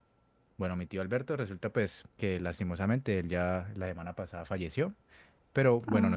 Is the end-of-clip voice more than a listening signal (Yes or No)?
No